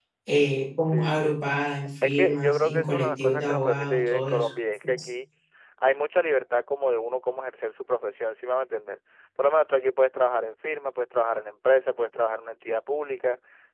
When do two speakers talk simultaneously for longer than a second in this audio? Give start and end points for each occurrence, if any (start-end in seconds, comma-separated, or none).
2.0-4.5